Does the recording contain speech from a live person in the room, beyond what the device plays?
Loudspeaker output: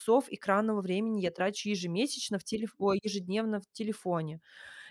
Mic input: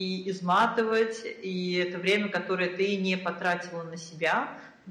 Yes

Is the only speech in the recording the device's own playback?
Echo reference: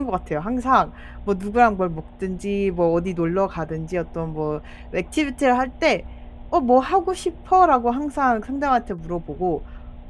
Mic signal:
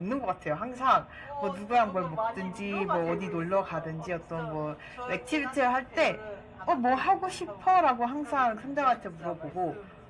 No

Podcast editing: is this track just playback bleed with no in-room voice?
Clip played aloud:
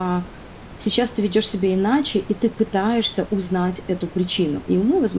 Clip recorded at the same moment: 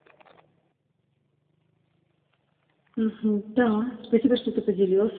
No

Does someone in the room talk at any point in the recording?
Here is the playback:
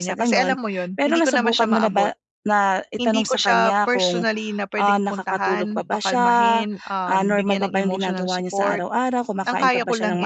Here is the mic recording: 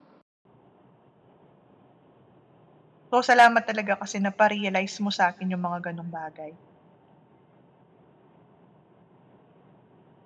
Yes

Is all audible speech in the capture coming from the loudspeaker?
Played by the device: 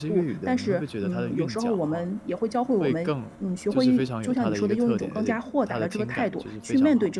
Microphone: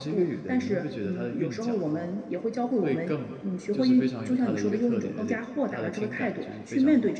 Yes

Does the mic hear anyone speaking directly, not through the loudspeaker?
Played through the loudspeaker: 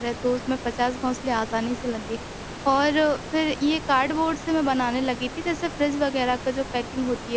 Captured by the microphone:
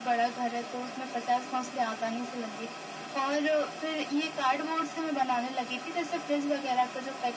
No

